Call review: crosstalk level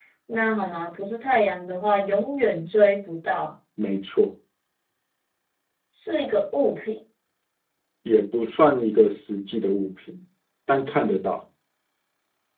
none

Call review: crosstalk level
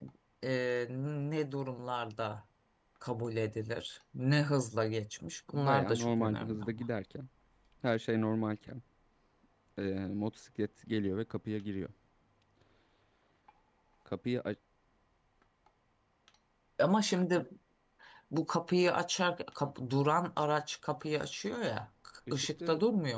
present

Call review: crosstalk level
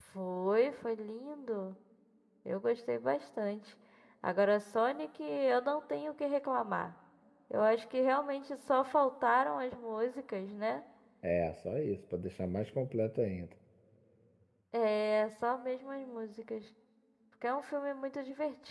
none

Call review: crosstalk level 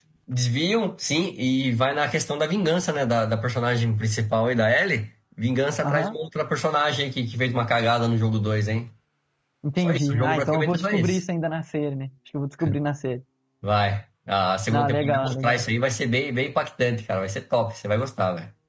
present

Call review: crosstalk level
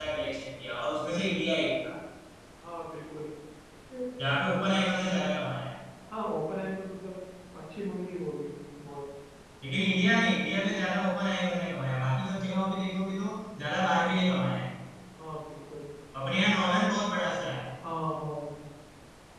none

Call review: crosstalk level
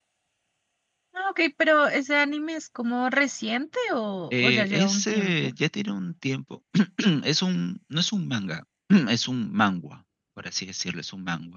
present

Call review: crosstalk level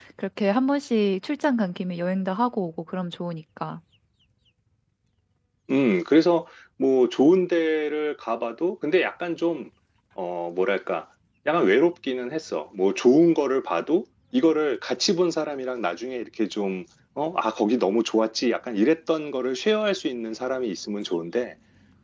none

